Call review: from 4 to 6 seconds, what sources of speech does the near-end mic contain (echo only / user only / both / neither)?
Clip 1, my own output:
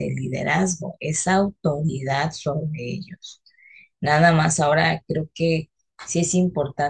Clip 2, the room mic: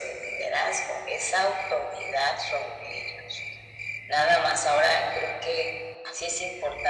echo only